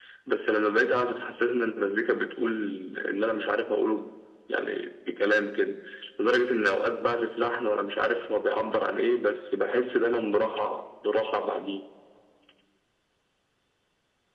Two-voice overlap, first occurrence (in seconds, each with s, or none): none